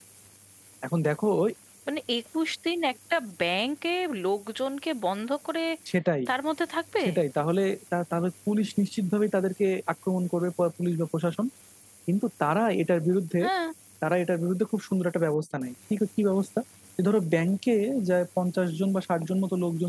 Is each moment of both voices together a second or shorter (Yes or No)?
Yes